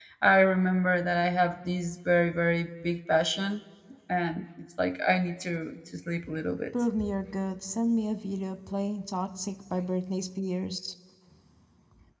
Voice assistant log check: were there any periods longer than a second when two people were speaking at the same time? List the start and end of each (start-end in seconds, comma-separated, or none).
none